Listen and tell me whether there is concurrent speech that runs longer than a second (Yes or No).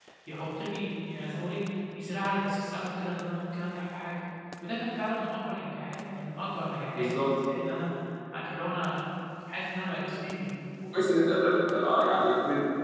No